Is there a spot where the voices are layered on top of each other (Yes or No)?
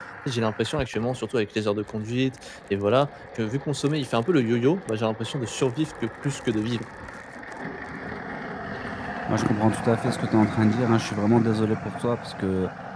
No